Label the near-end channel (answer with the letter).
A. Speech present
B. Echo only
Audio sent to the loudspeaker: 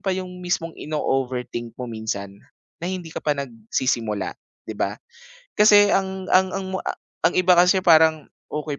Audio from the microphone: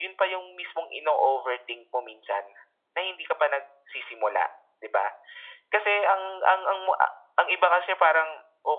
B